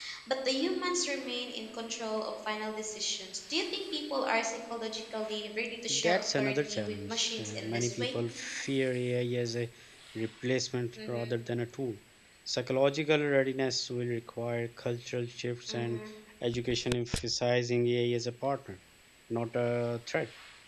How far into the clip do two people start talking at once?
5.9 s

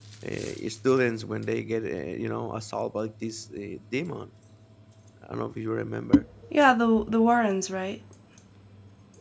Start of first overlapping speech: none

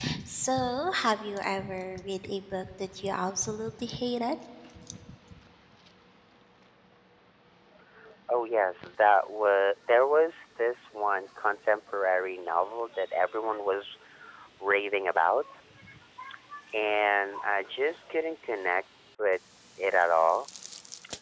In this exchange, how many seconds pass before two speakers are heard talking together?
none

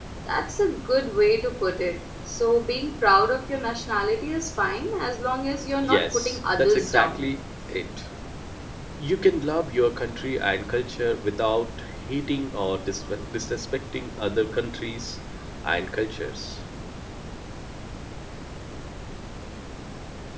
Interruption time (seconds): 5.8 s

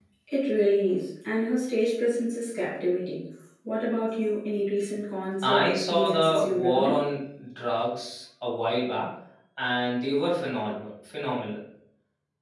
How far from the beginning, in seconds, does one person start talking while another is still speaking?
5.4 s

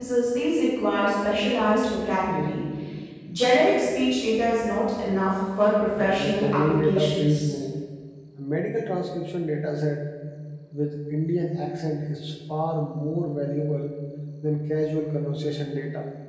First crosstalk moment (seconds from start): 6.0 s

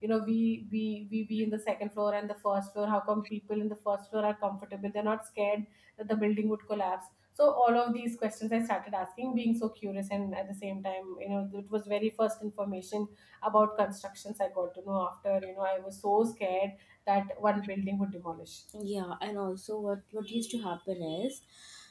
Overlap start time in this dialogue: none

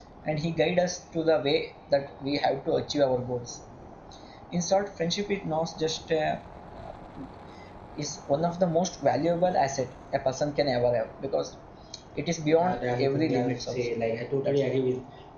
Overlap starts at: 12.6 s

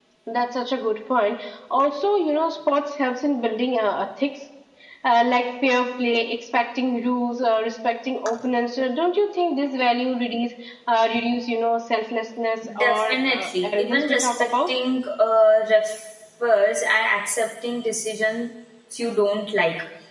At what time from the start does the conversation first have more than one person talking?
12.6 s

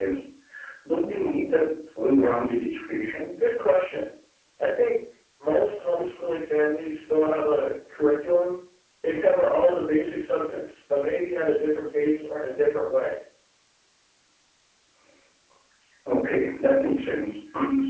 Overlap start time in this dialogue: none

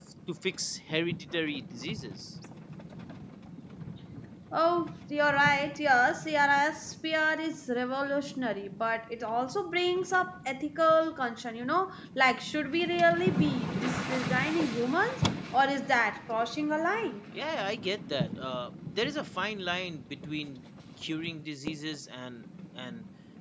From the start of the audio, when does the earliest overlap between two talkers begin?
none

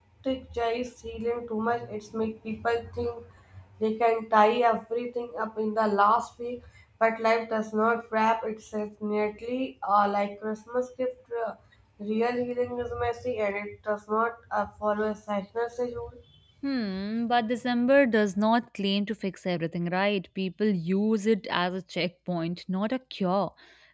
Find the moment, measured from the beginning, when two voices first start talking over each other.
none

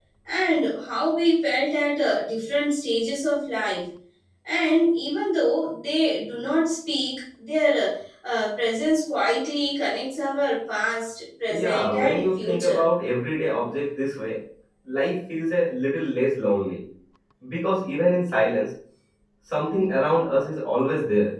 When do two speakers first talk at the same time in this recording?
11.5 s

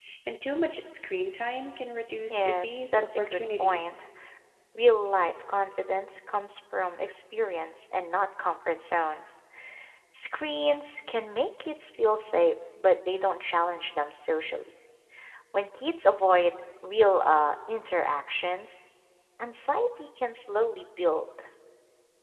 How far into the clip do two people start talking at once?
2.3 s

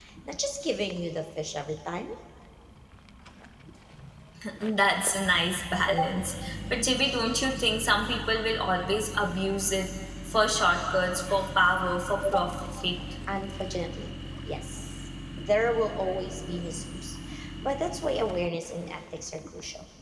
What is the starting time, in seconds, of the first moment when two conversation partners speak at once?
none

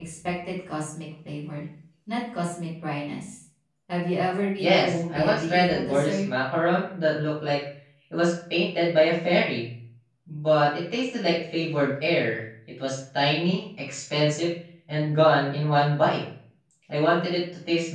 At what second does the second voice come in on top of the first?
4.6 s

